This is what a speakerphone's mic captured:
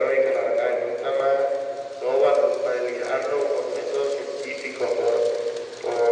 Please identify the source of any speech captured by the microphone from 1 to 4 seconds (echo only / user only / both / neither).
echo only